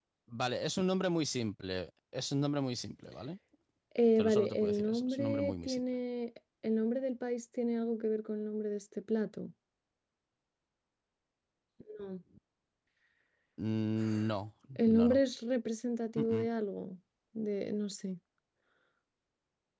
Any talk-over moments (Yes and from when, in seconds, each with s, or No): Yes, from 4.2 s